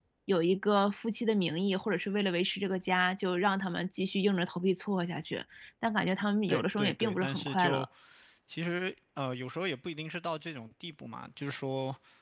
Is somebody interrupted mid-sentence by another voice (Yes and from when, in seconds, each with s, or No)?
Yes, from 6.5 s